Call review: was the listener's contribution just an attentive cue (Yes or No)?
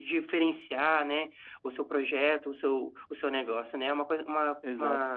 No